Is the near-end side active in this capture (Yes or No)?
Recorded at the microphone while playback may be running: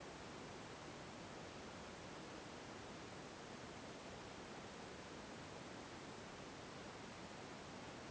No